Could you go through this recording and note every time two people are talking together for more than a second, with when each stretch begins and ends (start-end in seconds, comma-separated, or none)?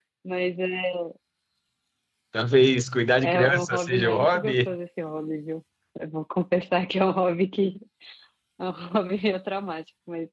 3.2-4.8